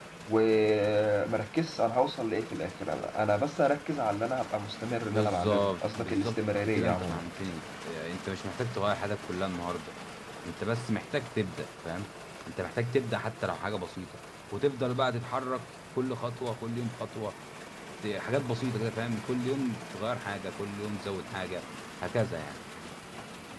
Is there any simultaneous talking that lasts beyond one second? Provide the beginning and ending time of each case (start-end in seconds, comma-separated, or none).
5.0-7.2